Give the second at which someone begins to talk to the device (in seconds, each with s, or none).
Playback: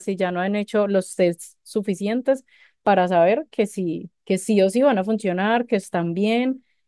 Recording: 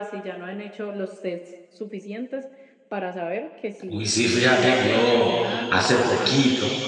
3.9 s